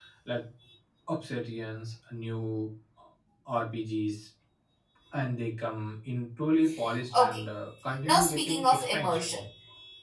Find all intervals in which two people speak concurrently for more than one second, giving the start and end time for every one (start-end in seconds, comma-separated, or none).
8.1-9.3